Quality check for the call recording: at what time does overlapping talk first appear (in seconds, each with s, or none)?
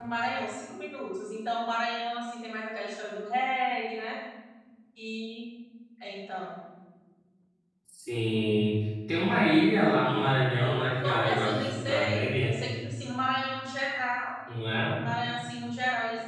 11.0 s